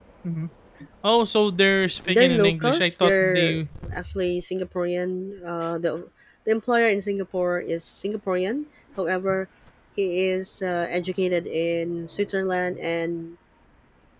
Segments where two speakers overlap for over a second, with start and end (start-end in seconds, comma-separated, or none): 2.1-3.7